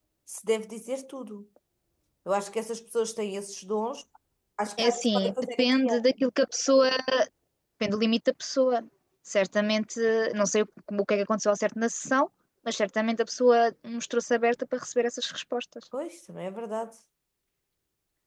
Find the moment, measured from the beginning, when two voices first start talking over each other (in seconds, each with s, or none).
4.8 s